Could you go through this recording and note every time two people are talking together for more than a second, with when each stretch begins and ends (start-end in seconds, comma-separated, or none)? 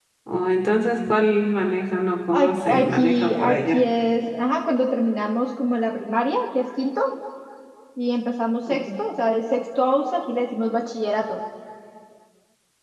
2.3-3.8